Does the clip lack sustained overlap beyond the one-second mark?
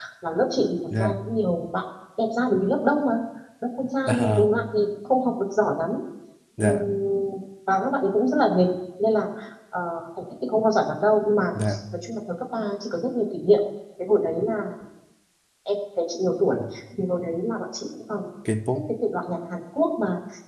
Yes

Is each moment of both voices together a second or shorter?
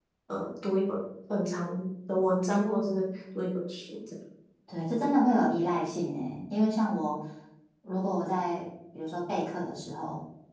Yes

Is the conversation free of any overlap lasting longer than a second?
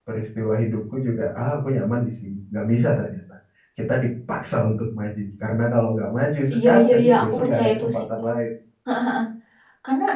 No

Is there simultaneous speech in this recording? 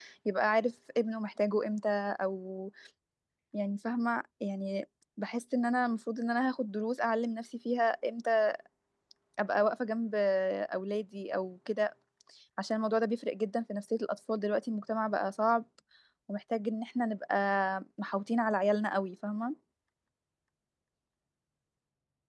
No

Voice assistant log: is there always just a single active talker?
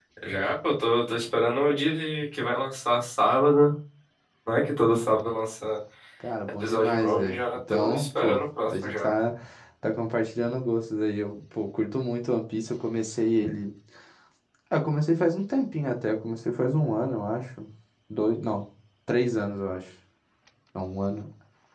No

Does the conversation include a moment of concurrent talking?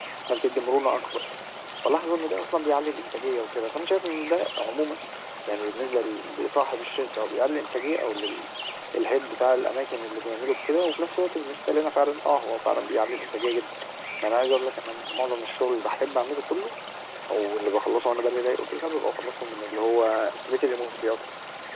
No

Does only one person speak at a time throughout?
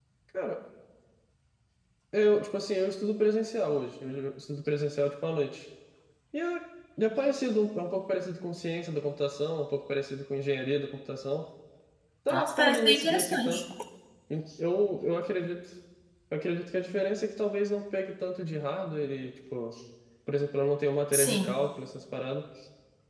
No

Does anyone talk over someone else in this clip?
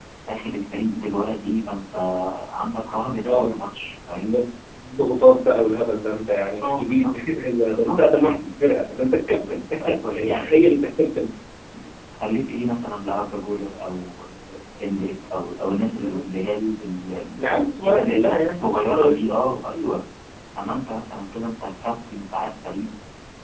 Yes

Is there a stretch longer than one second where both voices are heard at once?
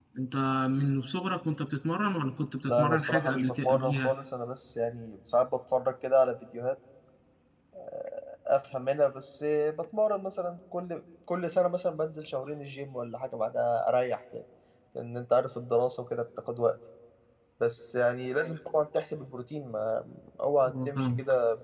Yes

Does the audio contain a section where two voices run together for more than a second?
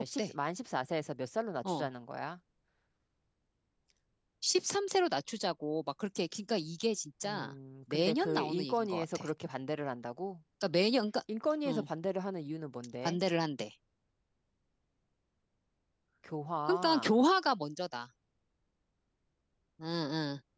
Yes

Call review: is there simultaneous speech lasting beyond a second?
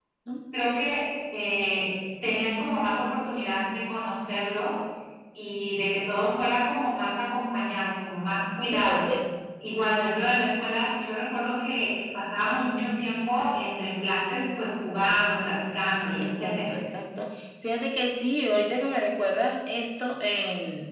No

